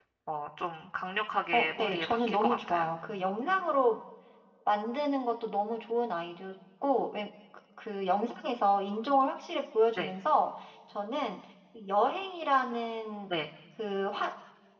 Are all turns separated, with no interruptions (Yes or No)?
No